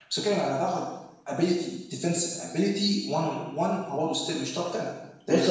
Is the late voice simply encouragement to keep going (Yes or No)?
No